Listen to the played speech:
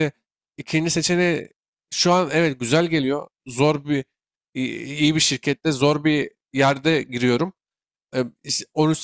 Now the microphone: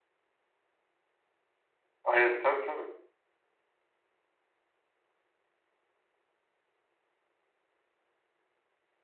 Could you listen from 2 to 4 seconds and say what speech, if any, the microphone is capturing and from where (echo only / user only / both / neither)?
user only